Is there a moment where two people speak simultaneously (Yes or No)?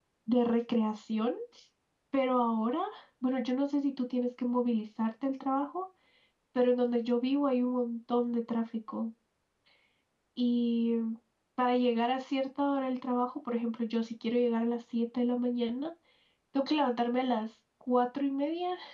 No